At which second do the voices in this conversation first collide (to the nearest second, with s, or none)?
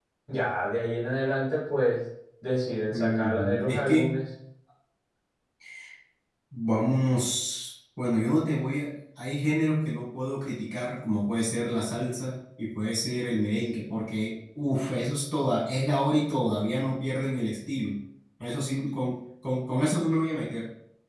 3 s